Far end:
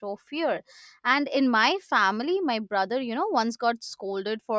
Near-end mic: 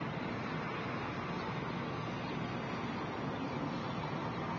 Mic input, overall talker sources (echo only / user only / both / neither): neither